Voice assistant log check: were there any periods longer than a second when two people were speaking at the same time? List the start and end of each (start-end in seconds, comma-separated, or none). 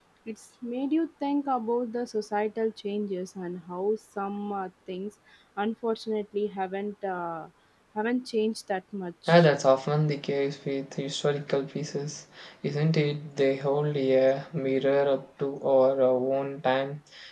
none